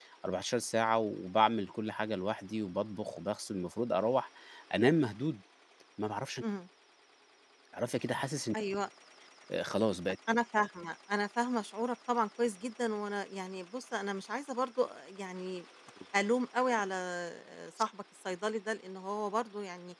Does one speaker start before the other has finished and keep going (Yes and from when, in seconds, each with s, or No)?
No